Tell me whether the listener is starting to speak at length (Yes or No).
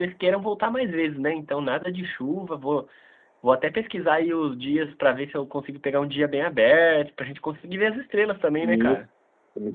Yes